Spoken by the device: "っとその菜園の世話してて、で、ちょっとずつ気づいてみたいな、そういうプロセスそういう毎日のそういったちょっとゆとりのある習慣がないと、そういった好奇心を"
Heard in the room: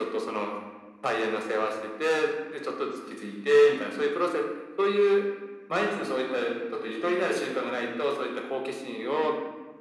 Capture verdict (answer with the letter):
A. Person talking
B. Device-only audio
B